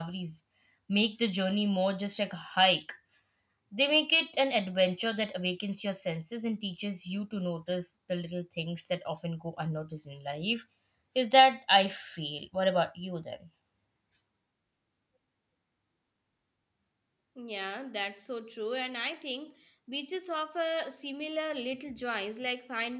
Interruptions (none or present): none